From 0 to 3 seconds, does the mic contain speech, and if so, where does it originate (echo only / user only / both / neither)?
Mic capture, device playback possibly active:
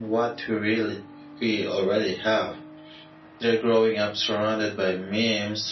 echo only